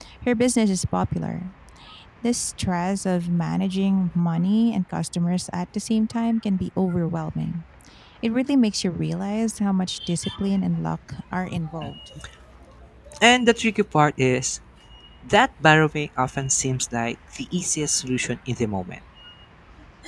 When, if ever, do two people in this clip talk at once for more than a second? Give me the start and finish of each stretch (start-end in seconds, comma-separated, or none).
none